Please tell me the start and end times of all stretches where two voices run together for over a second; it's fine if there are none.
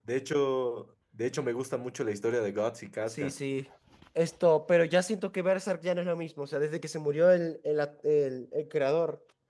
none

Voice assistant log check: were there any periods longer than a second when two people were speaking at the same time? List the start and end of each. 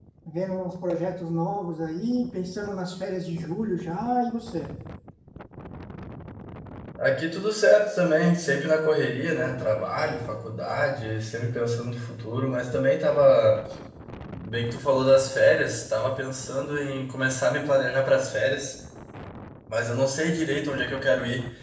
none

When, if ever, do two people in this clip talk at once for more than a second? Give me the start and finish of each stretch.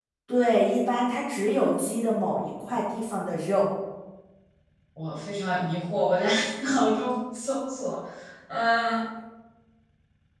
none

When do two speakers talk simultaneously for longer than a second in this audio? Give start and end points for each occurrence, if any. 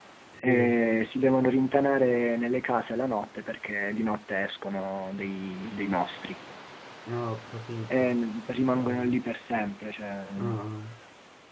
7.9-9.2

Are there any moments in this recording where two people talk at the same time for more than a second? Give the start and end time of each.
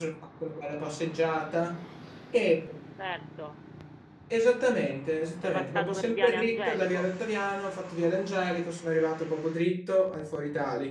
5.4-7.1

